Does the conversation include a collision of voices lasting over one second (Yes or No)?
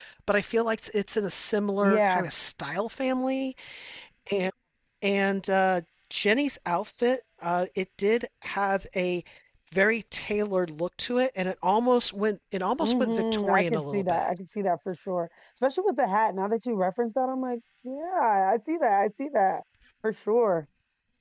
Yes